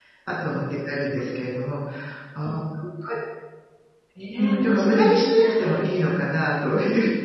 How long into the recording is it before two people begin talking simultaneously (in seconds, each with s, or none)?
4.4 s